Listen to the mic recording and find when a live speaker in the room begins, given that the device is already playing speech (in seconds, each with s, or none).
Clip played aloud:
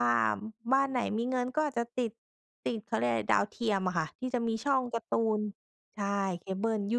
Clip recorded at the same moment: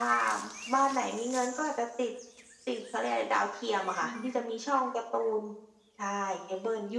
4.0 s